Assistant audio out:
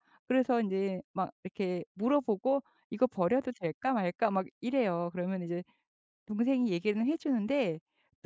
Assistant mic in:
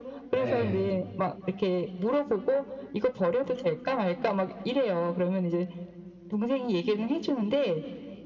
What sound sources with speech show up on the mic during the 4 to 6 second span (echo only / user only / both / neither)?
echo only